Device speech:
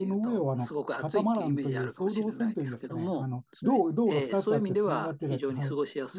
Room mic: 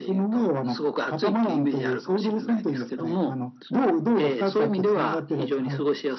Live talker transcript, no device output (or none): none